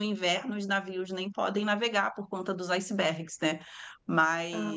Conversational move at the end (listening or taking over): listening